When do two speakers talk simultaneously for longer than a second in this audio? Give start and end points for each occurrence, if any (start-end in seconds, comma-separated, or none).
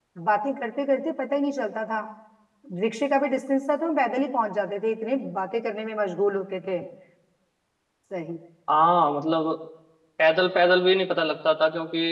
none